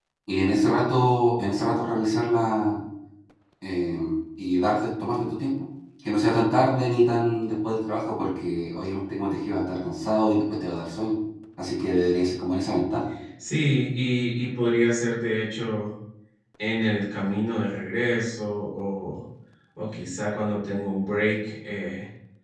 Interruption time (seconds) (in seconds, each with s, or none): none